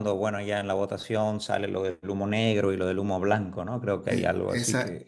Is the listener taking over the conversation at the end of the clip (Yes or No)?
Yes